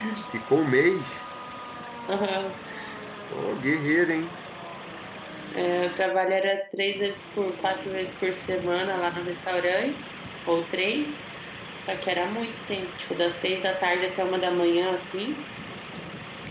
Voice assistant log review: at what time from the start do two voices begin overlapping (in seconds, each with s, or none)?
none